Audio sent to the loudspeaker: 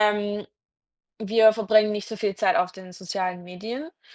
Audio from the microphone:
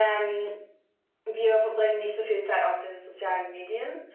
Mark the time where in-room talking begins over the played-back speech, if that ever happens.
none

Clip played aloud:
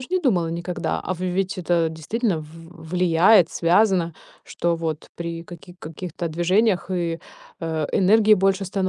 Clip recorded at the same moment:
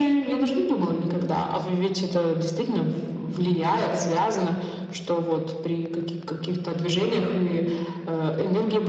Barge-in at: none

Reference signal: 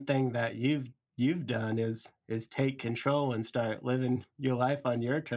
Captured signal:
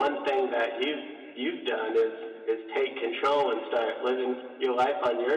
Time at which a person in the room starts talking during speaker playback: none

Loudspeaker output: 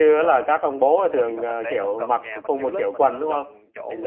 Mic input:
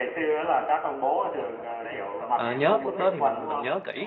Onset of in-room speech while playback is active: 2.3 s

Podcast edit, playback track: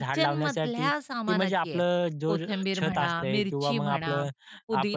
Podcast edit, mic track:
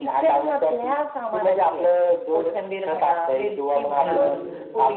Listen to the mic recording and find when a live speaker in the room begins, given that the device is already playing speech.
4.0 s

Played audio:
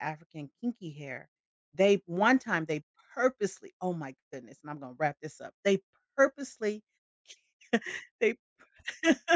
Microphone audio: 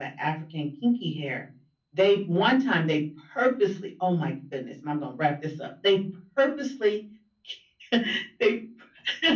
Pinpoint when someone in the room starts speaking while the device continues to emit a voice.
none

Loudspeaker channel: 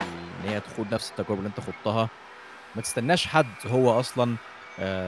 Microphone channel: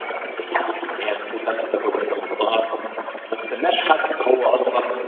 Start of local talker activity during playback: none

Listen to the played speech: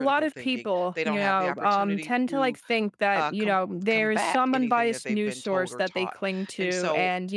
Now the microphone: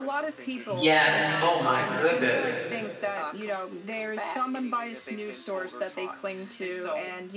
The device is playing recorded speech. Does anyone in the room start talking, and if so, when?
0.7 s

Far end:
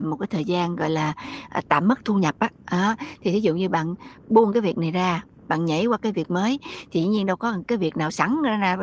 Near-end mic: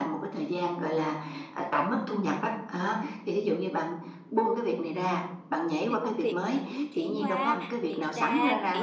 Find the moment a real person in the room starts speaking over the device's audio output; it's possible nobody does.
5.9 s

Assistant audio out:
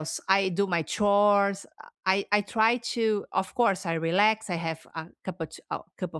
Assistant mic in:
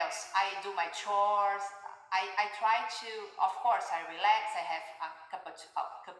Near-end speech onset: none

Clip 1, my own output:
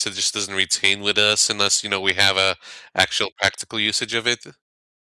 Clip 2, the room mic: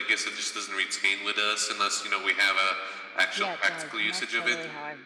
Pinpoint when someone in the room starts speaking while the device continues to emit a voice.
3.3 s

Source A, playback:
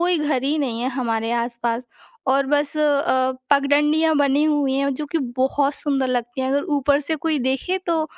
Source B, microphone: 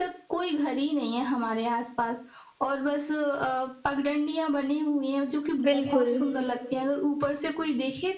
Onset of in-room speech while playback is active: 5.7 s

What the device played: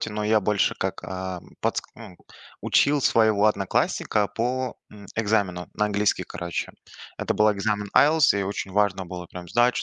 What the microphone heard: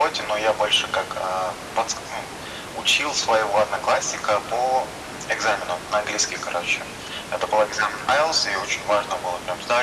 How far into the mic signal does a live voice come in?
none

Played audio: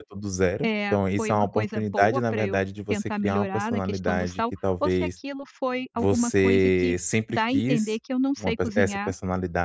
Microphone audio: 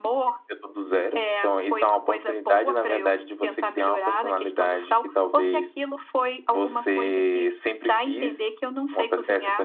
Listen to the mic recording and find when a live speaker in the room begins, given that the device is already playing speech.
none

